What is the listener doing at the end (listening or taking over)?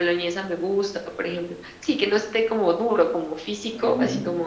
taking over